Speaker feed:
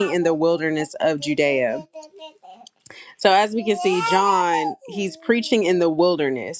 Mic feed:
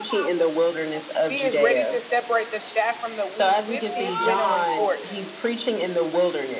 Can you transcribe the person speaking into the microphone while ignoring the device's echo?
He is ready to separate the chaff from the wheat with his winnowing fork.

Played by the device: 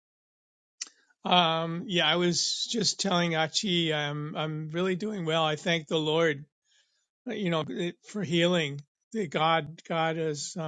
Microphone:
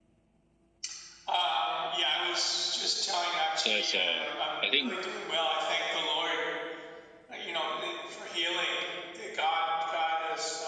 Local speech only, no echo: there's a. Uh, I think

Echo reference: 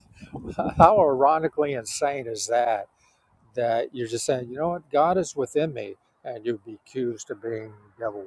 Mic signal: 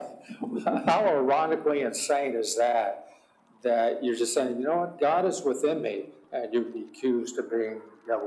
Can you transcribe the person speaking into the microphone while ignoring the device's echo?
none

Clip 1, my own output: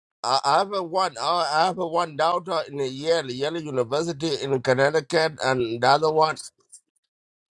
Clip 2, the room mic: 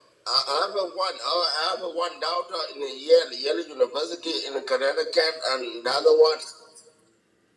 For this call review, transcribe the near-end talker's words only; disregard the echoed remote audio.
none

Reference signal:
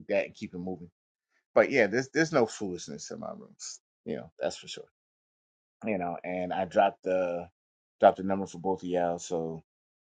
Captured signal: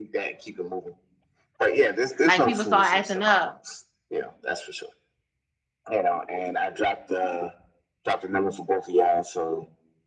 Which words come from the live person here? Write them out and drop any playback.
Like people start acting up.

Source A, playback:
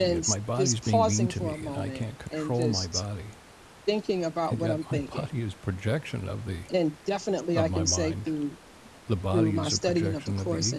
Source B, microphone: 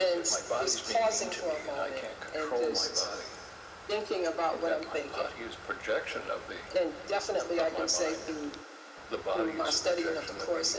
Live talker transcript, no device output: none

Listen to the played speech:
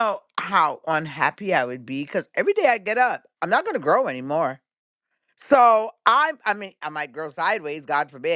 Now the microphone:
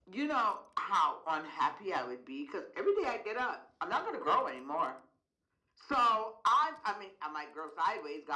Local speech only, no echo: none

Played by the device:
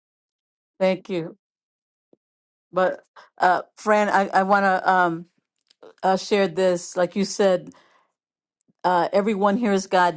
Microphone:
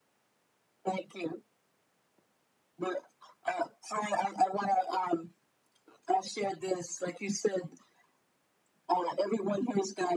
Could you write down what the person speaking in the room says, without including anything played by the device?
none

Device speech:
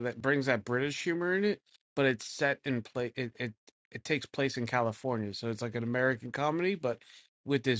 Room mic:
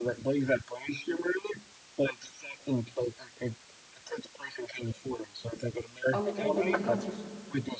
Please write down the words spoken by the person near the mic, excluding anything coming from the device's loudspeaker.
on the Indian. restaurant.

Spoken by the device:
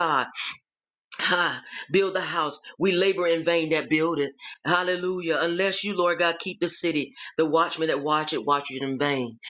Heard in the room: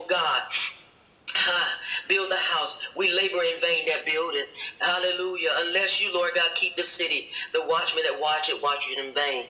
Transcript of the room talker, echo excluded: none

